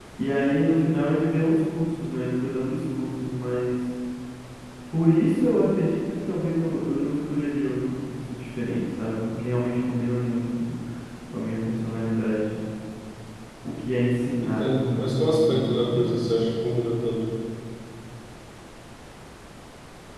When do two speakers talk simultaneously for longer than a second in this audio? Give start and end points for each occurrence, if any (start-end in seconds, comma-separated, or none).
14.4-16.2